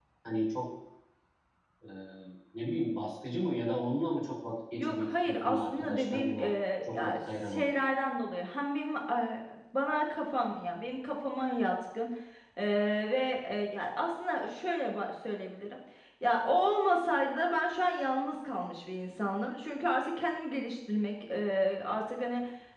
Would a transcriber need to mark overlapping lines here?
Yes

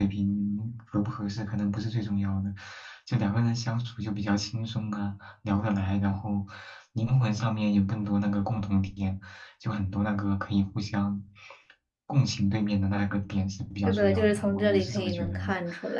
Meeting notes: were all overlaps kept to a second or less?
No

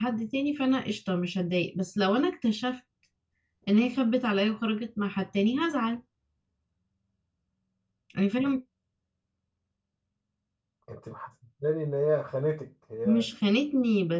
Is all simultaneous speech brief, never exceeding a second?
Yes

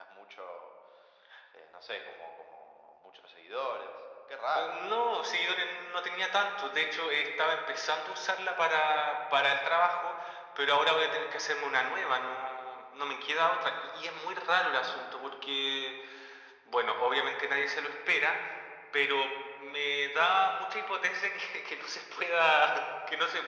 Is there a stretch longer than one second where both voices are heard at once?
No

